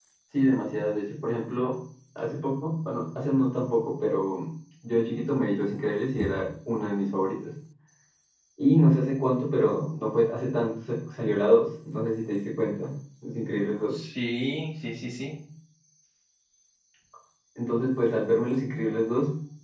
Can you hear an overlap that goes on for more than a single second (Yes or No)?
No